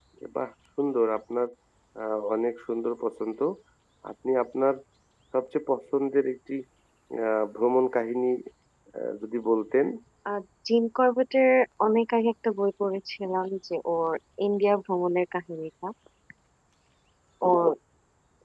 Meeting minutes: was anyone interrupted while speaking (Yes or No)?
No